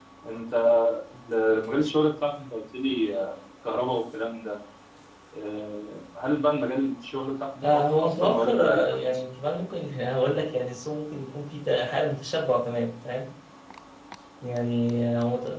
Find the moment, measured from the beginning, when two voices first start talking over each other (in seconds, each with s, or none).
7.6 s